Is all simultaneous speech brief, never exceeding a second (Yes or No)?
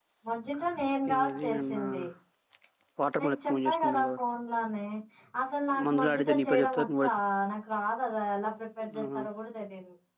No